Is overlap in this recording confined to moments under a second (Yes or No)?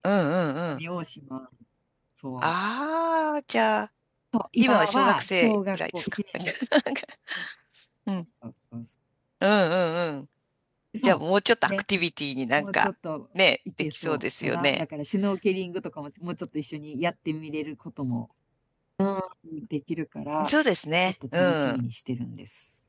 No